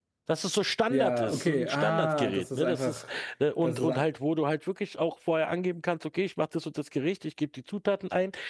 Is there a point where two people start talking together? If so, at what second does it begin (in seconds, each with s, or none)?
0.9 s